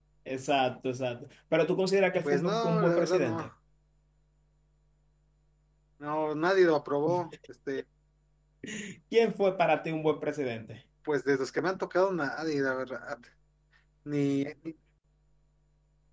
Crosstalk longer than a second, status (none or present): present